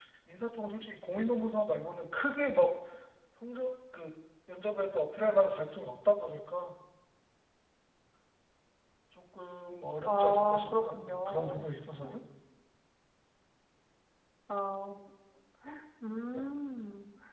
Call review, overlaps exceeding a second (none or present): present